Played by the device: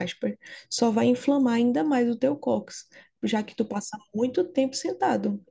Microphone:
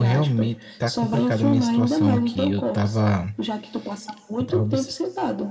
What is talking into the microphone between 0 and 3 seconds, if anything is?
both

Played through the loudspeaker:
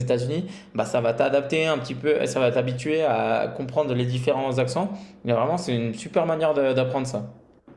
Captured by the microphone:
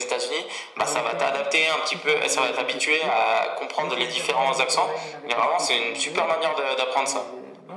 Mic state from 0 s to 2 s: both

